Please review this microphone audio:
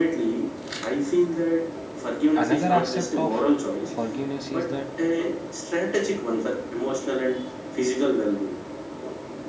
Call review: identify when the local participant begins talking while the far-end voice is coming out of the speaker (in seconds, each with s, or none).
2.3 s